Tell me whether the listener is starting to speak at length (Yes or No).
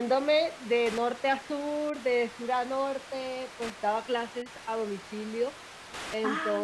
No